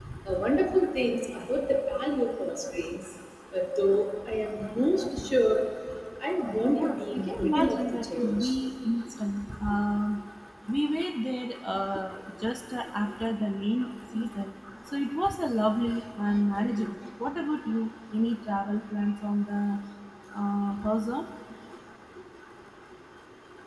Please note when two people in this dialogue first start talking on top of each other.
7 s

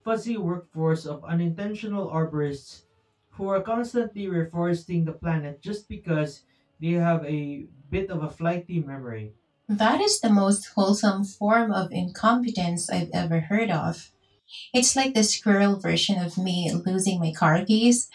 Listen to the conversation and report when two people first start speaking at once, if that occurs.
none

